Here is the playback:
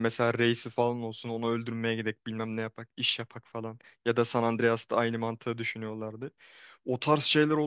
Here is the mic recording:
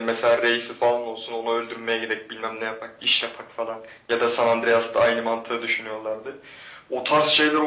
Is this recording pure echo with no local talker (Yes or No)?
Yes